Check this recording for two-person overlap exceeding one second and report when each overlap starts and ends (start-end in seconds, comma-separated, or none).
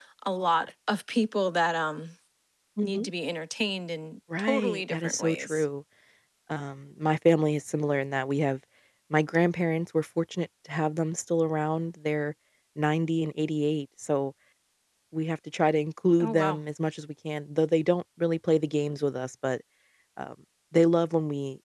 4.4-5.6